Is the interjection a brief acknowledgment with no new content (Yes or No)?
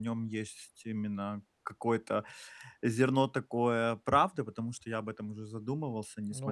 No